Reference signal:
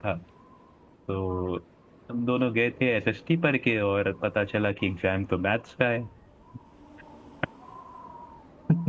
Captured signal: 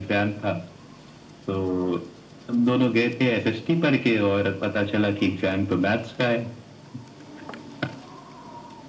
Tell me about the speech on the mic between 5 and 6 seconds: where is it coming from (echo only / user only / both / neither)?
echo only